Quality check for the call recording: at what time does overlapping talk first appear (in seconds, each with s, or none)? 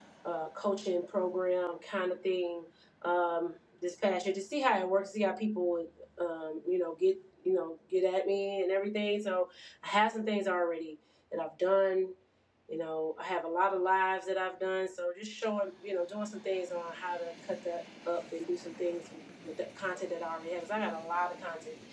none